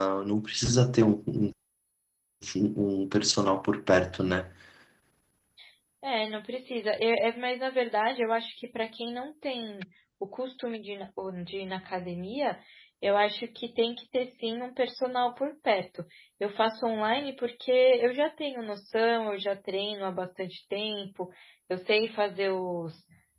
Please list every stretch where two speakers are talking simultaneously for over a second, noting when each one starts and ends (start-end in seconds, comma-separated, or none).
none